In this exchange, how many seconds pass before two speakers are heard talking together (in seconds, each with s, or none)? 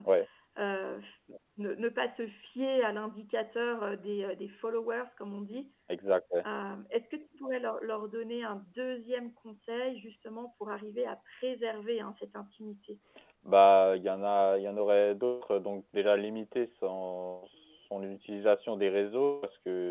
none